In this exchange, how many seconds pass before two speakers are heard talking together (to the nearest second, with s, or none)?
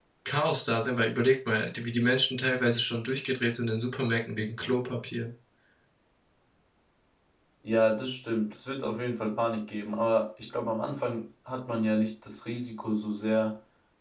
none